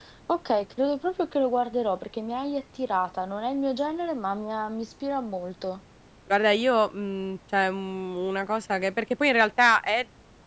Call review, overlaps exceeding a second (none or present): none